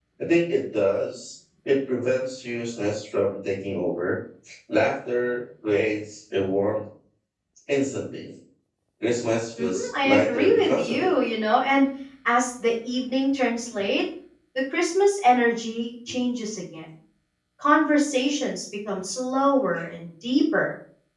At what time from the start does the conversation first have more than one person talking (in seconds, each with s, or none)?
9.6 s